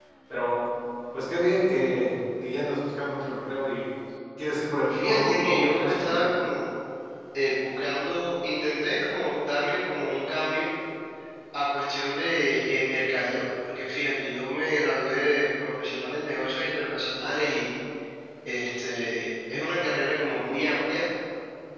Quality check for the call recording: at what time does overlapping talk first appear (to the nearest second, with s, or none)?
5 s